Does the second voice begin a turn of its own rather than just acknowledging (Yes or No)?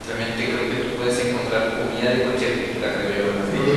Yes